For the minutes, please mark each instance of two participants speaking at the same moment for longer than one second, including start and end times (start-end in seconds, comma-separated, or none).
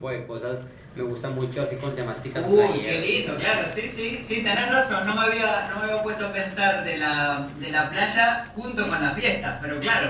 2.3-3.7